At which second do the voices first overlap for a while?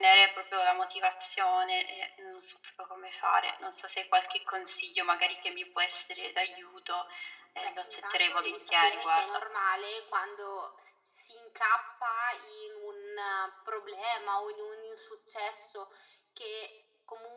7.6 s

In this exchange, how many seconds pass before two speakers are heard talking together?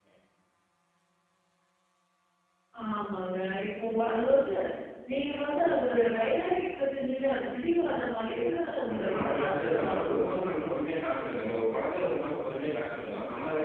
8.9 s

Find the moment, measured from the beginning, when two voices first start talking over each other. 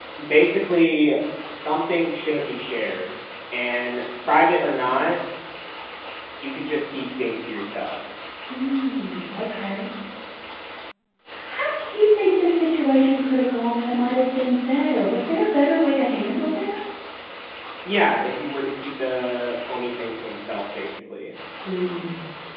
none

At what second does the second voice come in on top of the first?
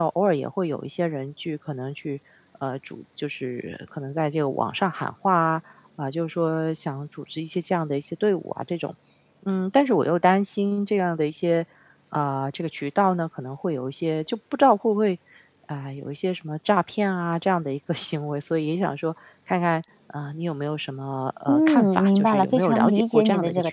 21.5 s

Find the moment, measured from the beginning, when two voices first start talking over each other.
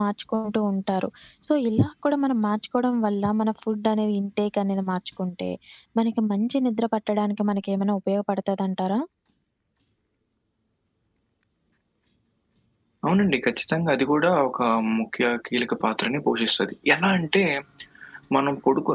none

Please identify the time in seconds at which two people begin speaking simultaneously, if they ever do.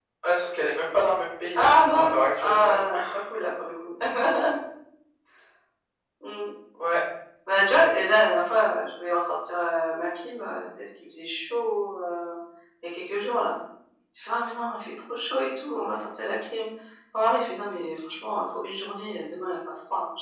1.6 s

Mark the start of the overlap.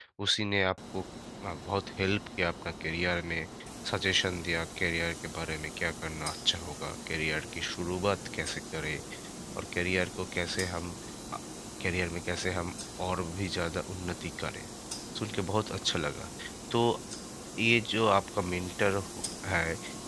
none

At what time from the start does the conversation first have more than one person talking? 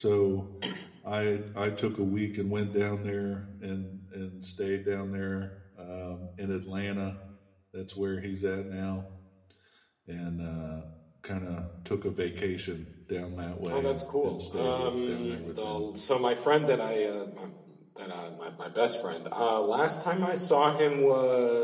13.7 s

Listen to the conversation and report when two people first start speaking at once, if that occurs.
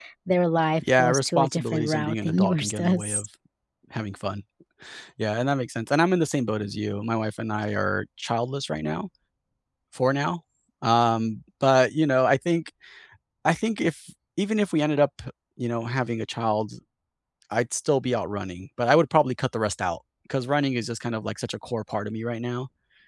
1.0 s

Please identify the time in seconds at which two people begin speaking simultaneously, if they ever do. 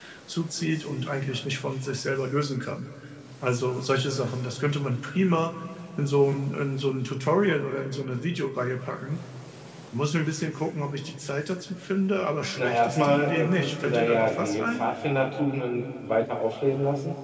12.6 s

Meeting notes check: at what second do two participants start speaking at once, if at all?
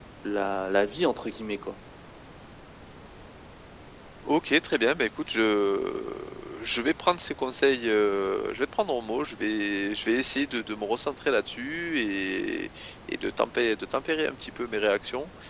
none

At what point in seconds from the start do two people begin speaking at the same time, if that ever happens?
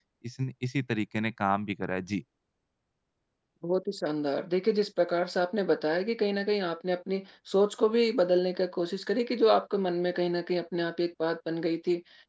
none

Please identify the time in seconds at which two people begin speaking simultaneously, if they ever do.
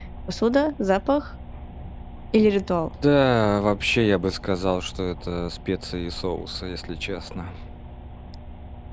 none

